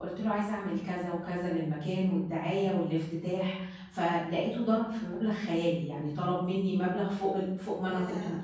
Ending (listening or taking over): taking over